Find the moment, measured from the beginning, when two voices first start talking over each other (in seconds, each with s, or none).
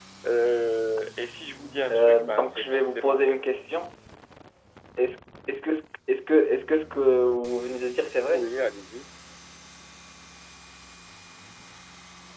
1.9 s